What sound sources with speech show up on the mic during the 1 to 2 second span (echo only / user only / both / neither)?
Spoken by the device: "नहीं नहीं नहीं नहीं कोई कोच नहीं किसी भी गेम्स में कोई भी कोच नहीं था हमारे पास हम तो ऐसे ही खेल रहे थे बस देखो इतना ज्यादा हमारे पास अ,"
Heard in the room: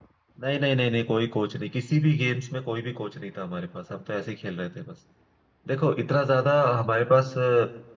echo only